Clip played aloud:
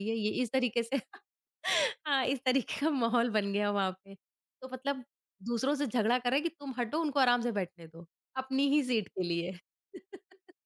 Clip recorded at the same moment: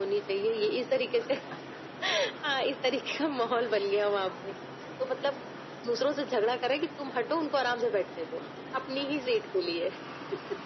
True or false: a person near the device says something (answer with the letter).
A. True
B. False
B